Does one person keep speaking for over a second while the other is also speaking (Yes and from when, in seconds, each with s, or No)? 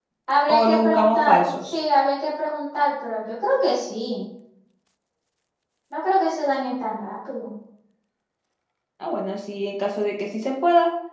Yes, from 0.6 s